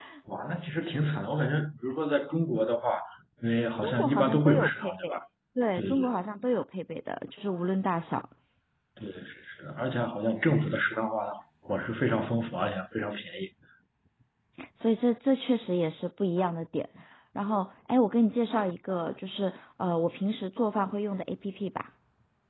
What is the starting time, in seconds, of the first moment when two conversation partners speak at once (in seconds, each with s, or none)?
3.8 s